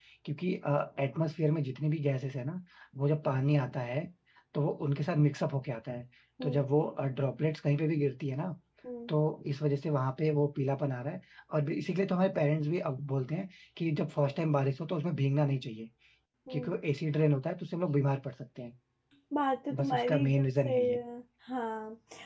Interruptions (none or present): present